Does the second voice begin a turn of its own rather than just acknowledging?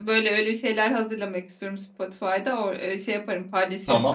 Yes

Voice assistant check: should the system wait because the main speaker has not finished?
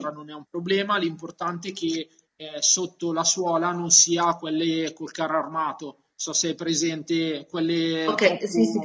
No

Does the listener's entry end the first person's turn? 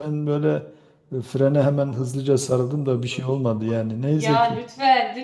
Yes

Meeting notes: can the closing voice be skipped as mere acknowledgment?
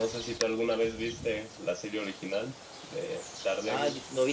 No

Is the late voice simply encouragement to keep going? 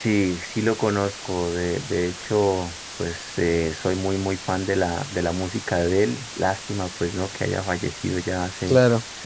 Yes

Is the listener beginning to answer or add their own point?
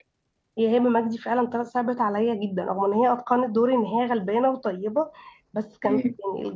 No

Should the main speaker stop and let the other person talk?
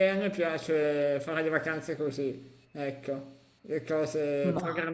No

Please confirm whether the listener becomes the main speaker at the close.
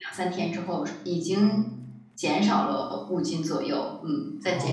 Yes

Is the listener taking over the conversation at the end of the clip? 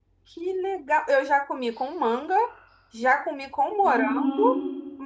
Yes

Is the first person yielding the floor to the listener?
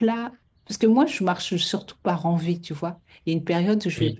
No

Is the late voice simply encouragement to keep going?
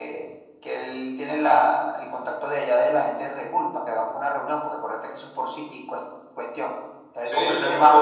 No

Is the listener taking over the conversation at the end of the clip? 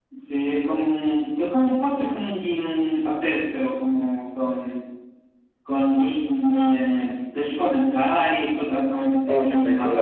Yes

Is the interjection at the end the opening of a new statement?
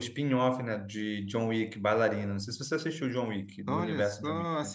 Yes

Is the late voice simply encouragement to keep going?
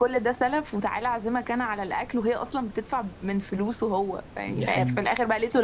Yes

